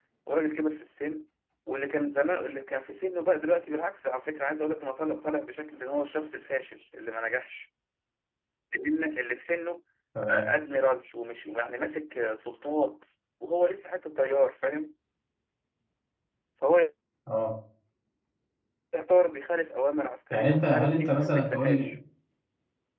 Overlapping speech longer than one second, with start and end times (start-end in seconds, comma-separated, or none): 20.3-22.0